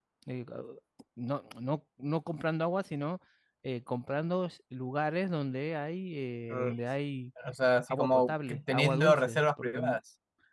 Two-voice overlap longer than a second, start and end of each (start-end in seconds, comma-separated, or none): 7.9-10.0